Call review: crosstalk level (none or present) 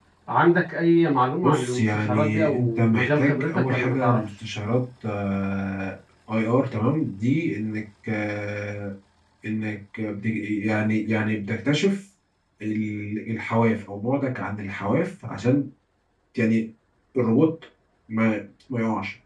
present